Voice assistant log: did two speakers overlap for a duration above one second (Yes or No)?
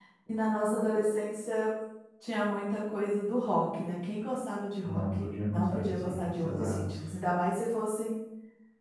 Yes